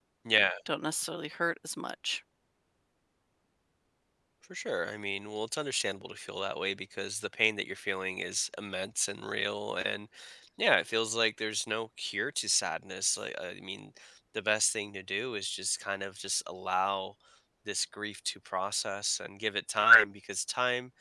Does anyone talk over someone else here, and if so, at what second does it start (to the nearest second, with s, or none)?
none